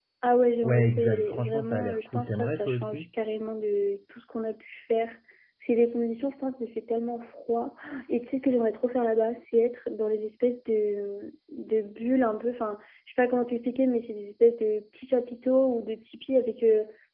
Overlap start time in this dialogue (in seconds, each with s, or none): 0.6 s